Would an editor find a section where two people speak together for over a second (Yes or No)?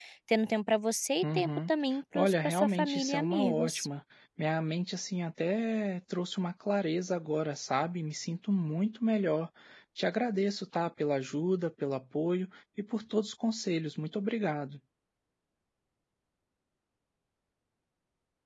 Yes